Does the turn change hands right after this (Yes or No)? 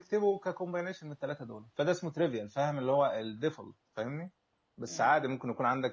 No